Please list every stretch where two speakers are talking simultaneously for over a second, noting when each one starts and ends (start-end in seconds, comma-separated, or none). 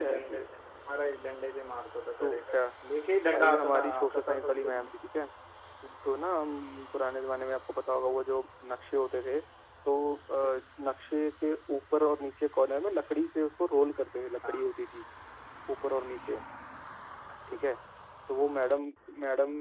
3.3-4.9